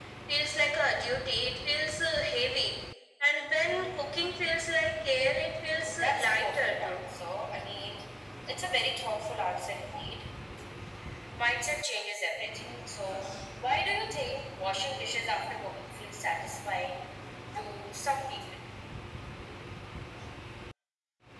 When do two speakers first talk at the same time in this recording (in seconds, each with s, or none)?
5.7 s